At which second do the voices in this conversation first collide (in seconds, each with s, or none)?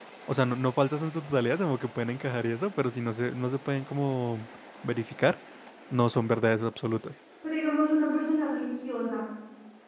none